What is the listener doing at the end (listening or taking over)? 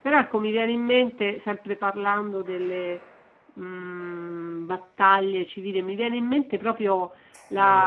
listening